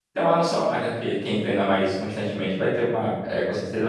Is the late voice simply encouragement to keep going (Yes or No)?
Yes